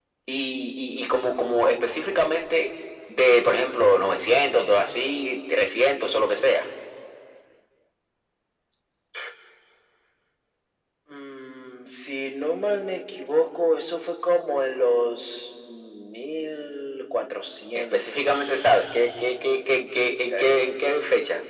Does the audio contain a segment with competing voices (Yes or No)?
Yes